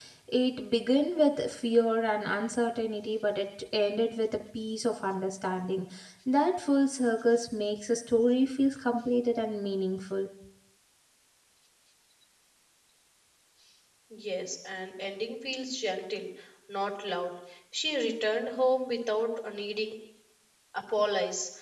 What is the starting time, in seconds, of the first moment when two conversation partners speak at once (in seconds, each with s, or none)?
none